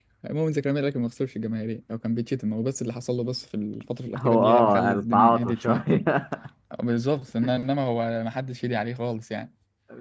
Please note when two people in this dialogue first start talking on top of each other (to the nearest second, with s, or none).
4 s